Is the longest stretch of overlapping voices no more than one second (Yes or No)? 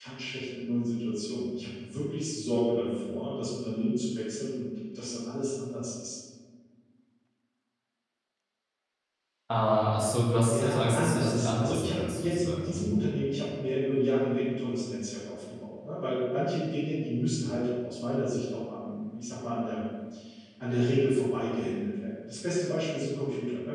No